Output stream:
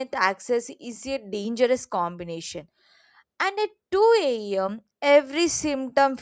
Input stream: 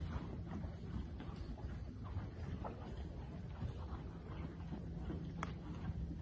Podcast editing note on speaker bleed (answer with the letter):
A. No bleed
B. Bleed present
A